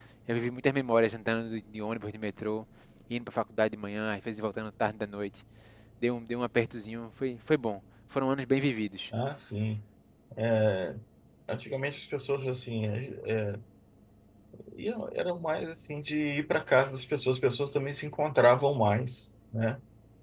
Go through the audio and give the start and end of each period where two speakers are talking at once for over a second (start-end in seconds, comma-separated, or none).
none